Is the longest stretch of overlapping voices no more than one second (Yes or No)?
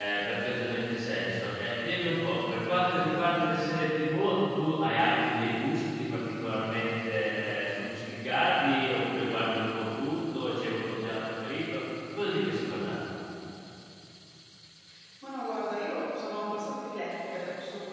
Yes